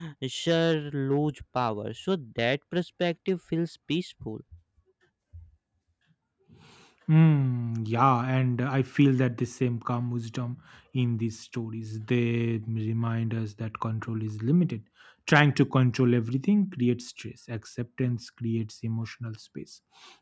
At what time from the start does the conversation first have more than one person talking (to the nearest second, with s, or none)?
none